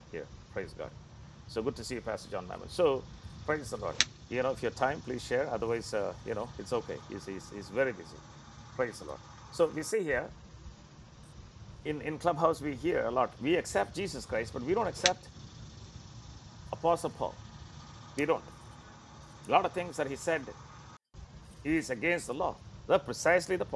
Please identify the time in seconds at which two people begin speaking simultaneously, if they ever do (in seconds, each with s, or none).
none